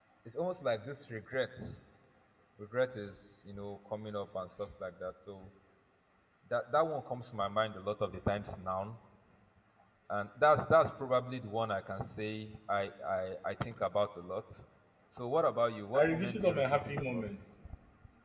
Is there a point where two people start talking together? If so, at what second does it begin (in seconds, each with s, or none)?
15.9 s